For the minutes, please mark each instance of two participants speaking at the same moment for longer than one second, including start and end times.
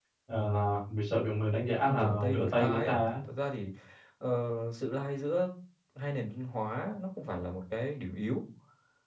1.8-3.1

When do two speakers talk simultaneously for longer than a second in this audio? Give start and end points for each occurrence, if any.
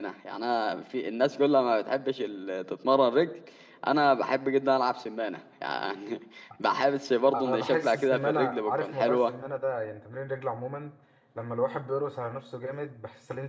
7.4-9.3

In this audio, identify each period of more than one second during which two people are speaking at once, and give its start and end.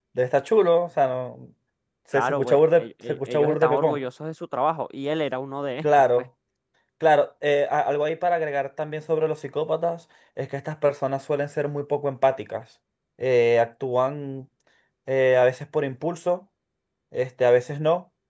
2.1-4.0

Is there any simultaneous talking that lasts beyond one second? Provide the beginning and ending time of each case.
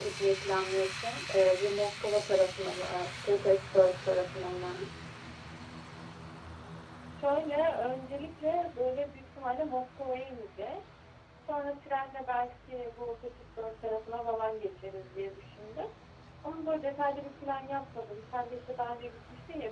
none

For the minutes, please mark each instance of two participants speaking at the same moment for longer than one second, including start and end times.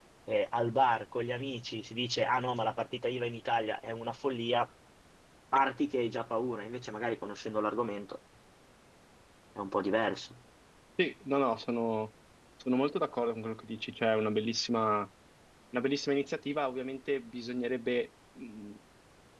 none

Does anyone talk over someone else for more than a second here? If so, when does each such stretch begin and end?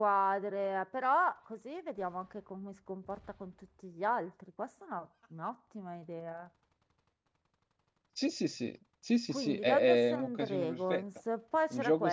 9.3-11.0

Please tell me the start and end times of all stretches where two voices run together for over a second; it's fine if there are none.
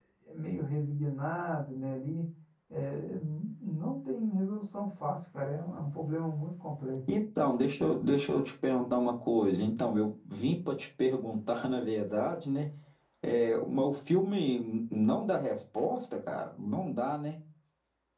none

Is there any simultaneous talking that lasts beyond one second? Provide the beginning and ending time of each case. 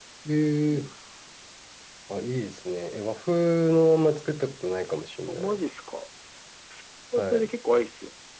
none

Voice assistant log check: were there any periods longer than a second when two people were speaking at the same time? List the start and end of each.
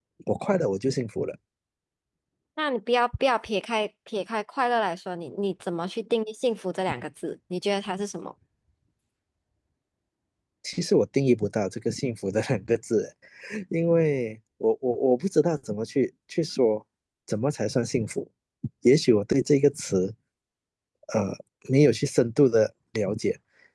none

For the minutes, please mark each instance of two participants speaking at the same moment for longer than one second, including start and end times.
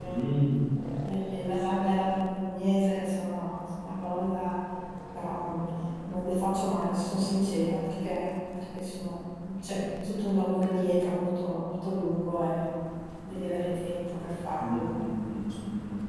none

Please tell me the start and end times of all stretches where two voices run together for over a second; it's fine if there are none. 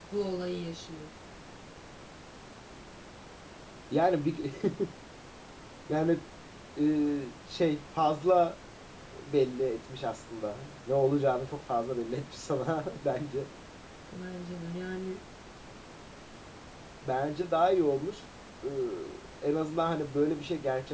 none

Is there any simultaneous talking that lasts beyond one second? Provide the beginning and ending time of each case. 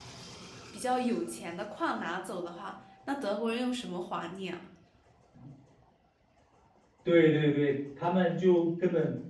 none

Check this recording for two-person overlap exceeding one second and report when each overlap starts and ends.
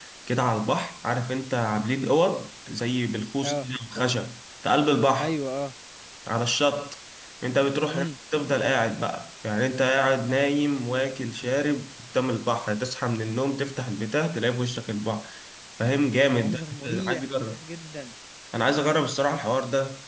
16.4-17.6

